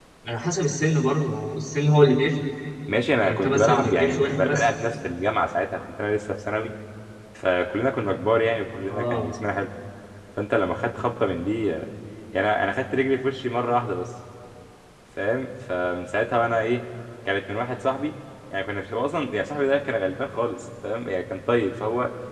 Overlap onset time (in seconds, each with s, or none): 3.2 s